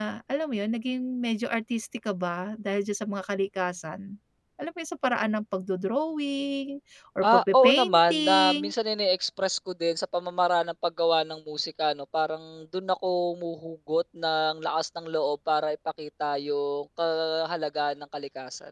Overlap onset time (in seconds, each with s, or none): 7.2 s